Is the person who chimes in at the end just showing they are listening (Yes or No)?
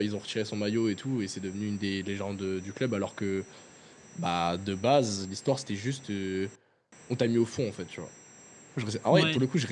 Yes